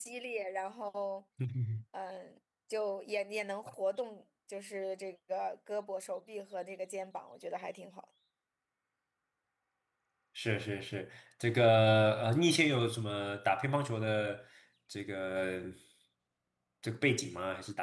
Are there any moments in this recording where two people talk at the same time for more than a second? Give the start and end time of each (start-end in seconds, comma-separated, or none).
none